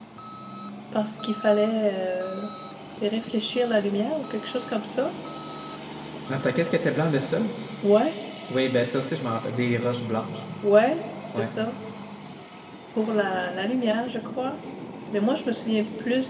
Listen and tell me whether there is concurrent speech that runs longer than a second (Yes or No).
No